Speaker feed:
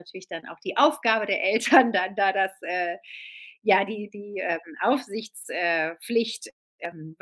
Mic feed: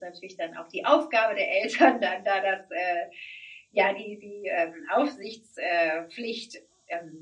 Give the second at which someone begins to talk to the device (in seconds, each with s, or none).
none